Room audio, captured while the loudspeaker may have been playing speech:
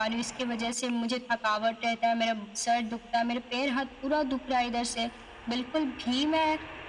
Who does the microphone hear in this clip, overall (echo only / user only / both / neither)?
echo only